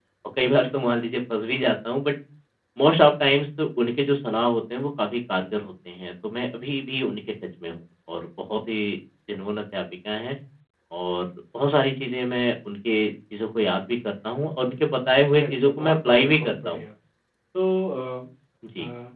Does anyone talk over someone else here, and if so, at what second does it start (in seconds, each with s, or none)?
15.3 s